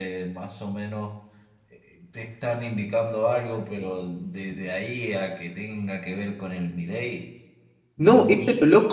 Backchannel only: No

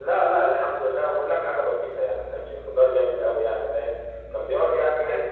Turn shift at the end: No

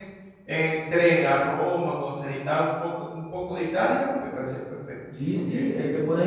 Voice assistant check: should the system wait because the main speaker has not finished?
No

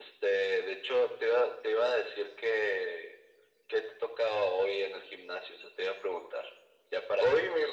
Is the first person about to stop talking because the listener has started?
Yes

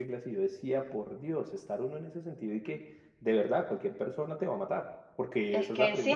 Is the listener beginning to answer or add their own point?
Yes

